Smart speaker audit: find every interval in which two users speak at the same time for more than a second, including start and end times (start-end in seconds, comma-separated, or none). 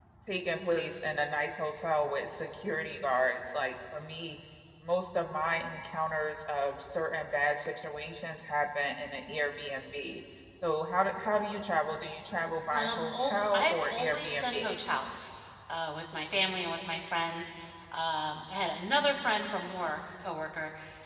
12.7-14.8